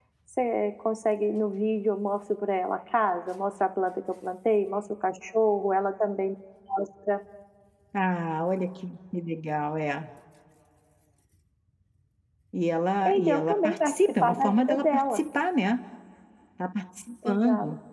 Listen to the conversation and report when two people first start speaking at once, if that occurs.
13.0 s

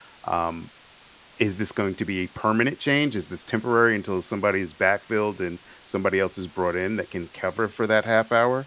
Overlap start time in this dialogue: none

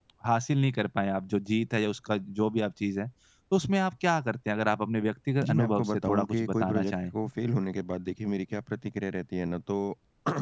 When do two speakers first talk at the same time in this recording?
5.4 s

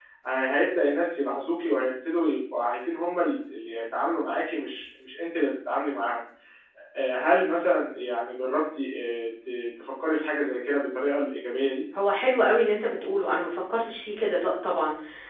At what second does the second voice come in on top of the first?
none

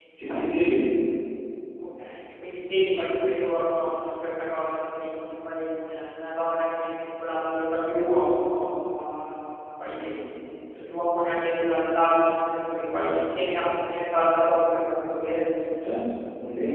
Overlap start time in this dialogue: none

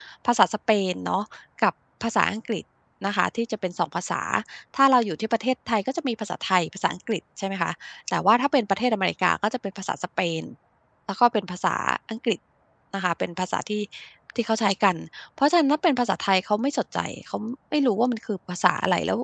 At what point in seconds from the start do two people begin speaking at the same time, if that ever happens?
none

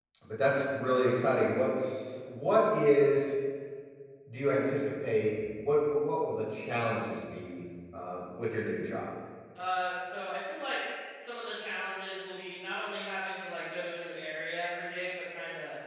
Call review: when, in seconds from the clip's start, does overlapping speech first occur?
none

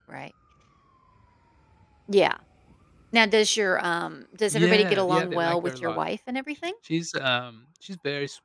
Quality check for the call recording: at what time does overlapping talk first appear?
4.5 s

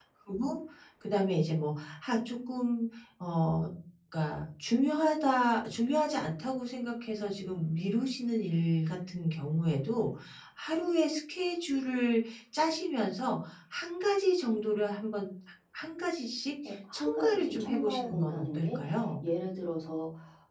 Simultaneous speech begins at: 16.6 s

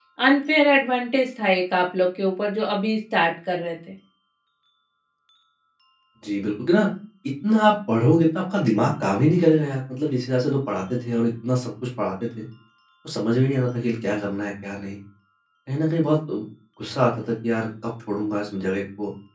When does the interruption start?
none

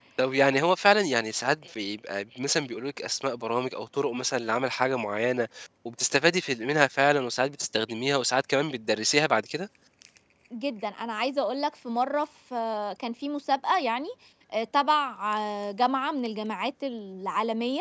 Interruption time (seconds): none

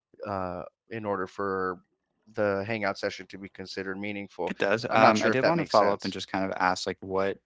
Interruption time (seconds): 4.9 s

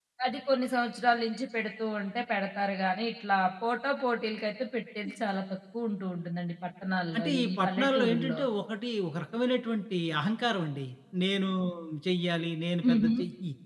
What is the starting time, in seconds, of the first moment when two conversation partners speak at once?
7.2 s

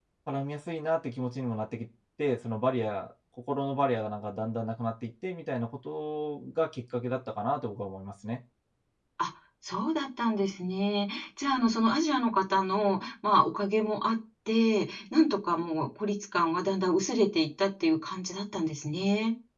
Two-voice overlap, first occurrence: none

